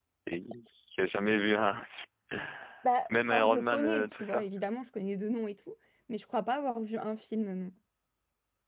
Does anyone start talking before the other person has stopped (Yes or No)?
Yes